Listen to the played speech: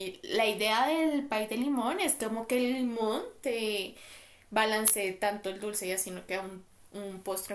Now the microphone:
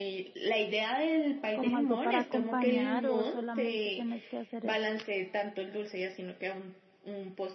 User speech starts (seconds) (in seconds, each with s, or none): 1.5 s